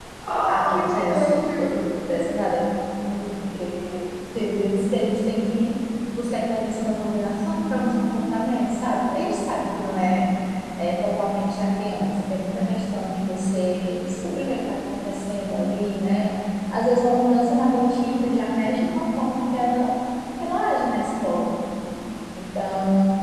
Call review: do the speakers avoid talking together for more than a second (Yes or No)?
No